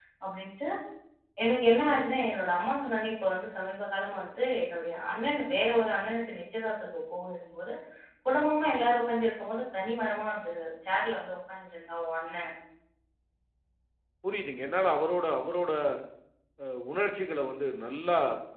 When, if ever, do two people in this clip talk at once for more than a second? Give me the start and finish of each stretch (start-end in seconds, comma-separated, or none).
none